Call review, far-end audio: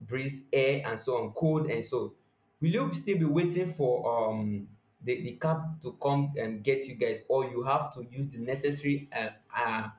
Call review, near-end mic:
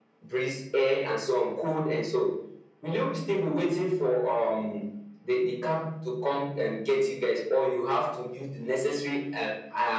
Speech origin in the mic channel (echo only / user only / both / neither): echo only